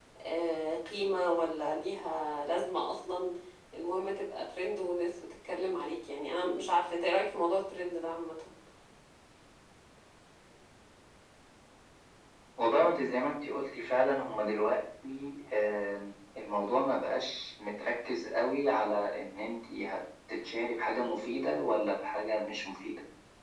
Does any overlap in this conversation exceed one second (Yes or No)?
No